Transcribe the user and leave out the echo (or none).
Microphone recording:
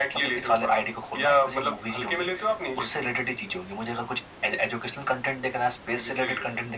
none